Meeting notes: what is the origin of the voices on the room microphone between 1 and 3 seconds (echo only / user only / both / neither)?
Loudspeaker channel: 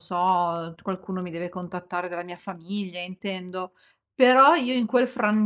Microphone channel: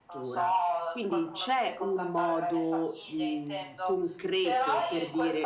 both